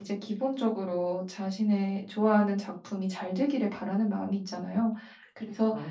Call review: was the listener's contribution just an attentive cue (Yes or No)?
Yes